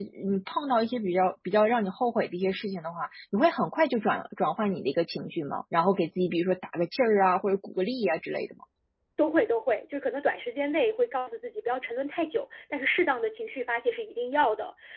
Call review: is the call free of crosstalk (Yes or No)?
Yes